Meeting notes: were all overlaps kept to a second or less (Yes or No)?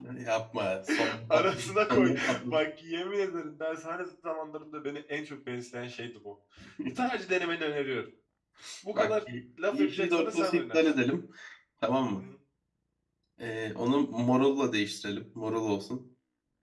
No